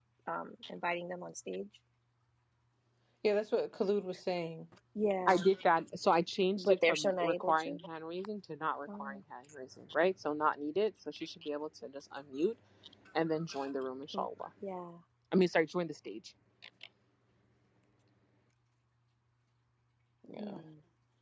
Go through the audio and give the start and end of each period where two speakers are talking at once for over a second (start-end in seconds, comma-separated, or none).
6.6-7.8